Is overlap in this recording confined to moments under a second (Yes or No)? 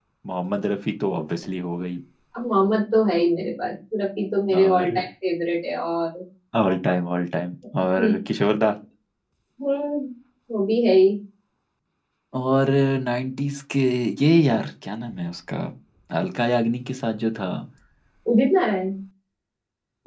Yes